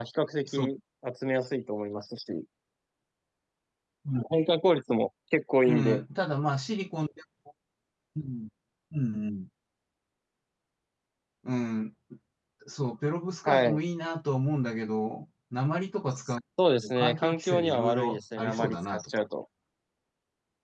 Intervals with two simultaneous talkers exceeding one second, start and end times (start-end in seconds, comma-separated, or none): 16.8-19.1